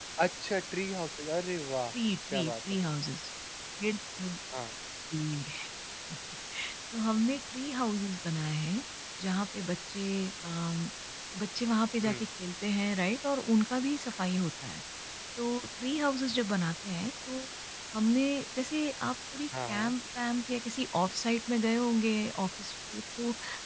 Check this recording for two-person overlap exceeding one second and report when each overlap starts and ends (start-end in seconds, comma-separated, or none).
none